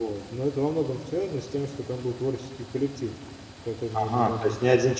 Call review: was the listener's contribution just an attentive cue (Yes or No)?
No